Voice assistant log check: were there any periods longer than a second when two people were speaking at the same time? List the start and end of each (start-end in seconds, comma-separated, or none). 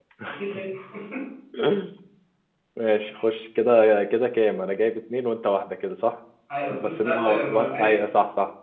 6.7-8.1